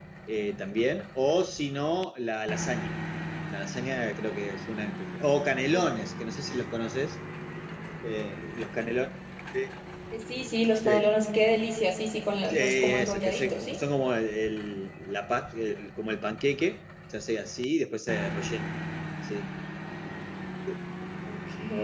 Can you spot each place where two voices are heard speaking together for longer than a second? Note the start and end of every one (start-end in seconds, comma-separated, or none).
12.5-13.8